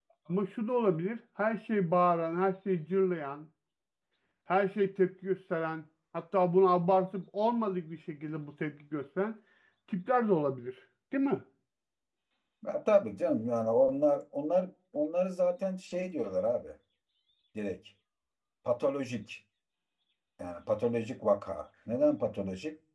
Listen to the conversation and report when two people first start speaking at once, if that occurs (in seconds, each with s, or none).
none